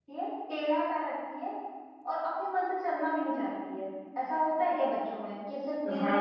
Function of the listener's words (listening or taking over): taking over